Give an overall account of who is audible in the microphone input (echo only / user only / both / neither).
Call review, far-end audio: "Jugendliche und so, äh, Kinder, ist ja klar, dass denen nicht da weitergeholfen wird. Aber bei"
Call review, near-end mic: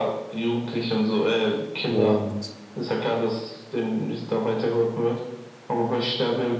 both